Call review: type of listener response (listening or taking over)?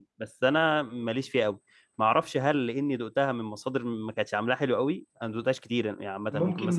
taking over